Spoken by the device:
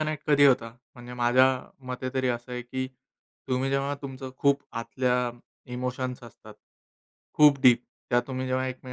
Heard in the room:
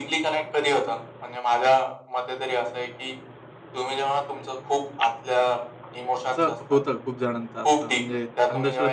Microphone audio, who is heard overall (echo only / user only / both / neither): both